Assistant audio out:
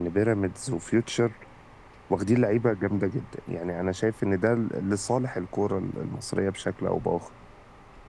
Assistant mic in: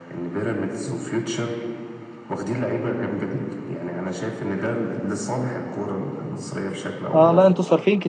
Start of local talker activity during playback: 7.2 s

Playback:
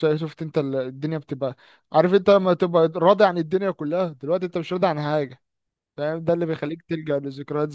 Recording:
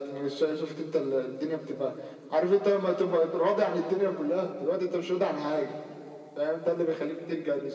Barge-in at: none

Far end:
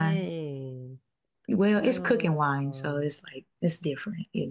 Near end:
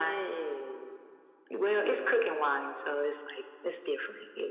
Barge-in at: none

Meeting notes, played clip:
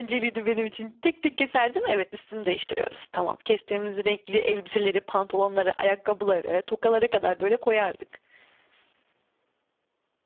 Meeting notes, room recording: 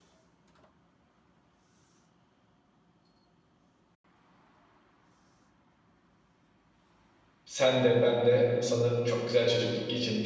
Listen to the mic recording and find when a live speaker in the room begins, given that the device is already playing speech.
7.5 s

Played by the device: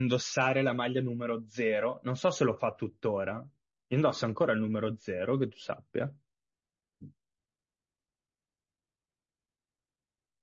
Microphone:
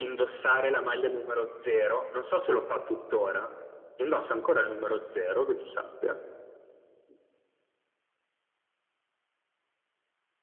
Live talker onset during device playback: none

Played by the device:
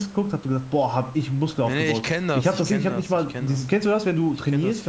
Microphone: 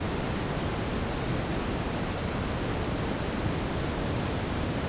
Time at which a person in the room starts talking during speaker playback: none

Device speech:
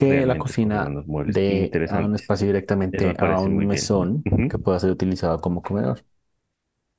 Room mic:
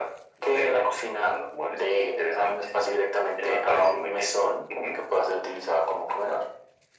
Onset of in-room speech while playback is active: none

